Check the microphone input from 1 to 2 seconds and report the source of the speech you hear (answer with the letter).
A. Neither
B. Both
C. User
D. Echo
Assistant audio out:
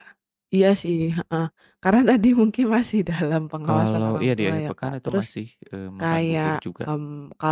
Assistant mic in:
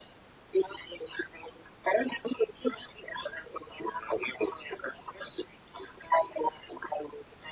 D